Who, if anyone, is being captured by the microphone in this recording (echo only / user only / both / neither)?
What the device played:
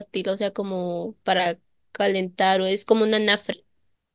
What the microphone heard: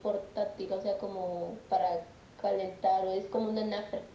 echo only